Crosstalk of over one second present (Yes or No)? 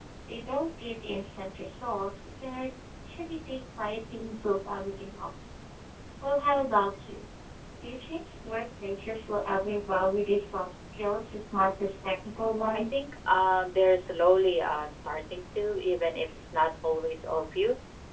No